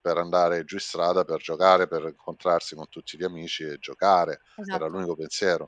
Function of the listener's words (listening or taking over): listening